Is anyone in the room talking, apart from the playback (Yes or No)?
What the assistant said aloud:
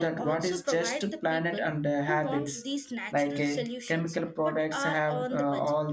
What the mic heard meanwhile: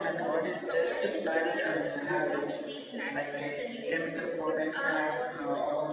No